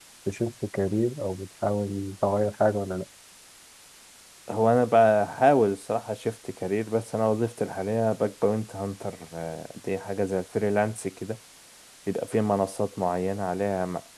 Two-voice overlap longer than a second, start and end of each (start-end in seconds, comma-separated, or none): none